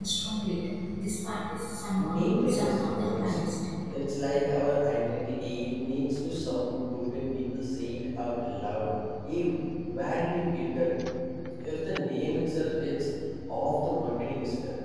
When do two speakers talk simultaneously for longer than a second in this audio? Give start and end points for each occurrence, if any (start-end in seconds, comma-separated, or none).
2.0-3.4